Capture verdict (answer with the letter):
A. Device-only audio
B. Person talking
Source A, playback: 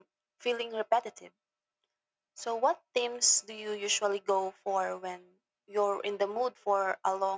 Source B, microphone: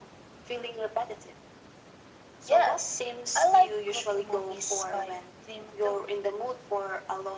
B